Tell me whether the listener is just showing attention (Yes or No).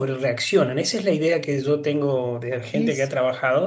Yes